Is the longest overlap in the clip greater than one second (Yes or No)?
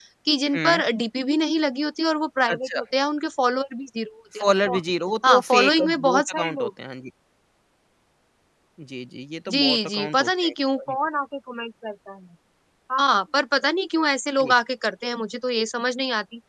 Yes